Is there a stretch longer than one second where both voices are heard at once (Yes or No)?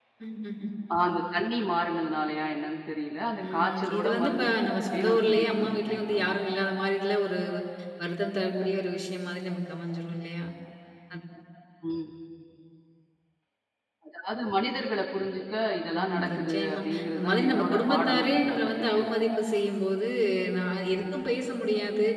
Yes